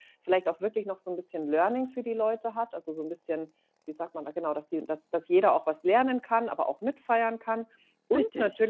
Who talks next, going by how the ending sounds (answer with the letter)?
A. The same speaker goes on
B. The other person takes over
A